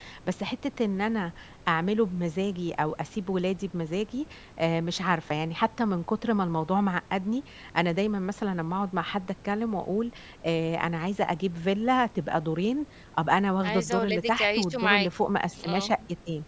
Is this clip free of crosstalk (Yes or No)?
No